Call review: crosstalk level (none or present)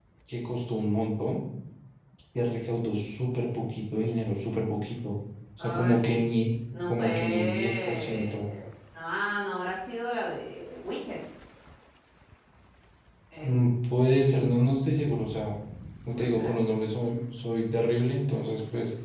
present